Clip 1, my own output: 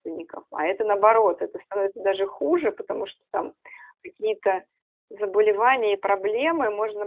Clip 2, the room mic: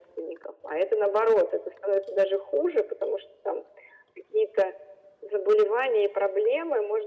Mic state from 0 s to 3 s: echo only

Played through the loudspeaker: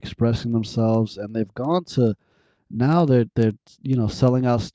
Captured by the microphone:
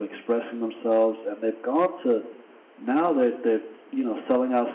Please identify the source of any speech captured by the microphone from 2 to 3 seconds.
echo only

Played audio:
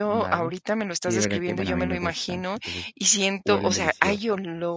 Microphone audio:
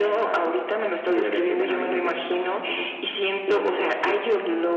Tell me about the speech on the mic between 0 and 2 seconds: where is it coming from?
echo only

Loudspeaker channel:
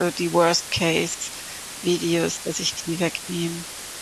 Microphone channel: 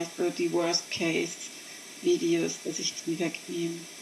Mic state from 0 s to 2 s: echo only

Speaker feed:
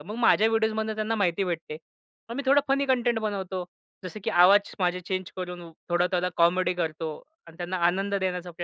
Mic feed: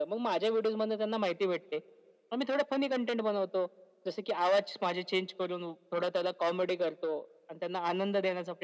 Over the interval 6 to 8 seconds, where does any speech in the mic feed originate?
echo only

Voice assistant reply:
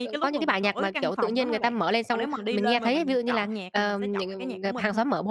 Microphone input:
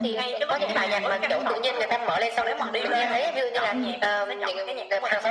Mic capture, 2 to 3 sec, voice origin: both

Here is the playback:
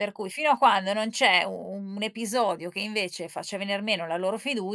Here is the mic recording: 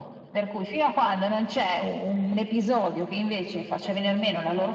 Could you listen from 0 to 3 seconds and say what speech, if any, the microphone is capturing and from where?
echo only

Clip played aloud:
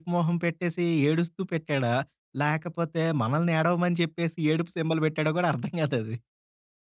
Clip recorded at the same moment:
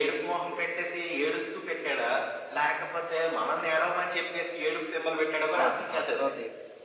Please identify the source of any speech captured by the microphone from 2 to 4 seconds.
echo only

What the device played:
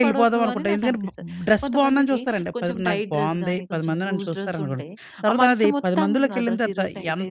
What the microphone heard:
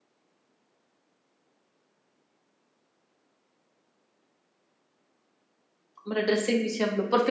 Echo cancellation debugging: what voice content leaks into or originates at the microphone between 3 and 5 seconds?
neither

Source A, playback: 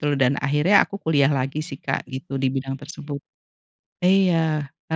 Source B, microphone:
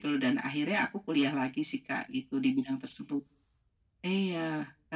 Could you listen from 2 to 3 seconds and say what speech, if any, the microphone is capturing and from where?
echo only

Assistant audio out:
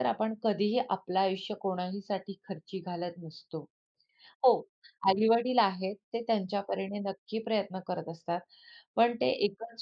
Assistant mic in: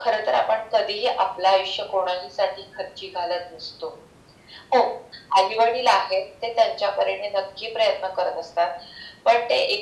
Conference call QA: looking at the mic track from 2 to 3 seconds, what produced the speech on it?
echo only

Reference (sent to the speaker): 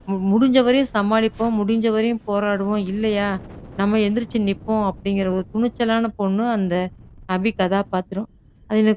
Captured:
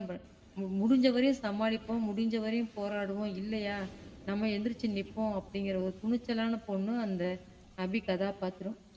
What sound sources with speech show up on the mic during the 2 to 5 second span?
echo only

